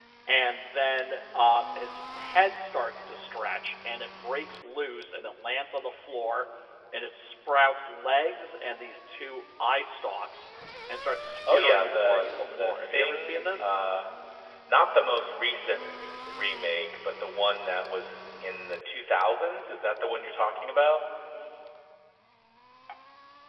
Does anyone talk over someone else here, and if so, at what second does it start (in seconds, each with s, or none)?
11.5 s